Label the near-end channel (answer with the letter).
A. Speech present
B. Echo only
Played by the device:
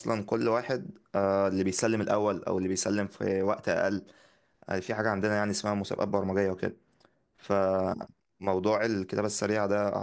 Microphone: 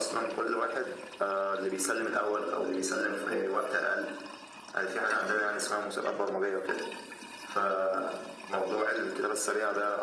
B